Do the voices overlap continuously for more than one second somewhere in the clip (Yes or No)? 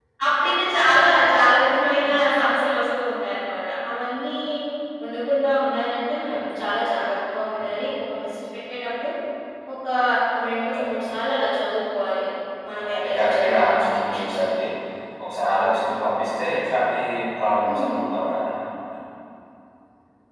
Yes